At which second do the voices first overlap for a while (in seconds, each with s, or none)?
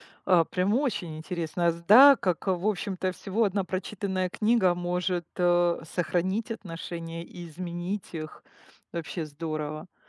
none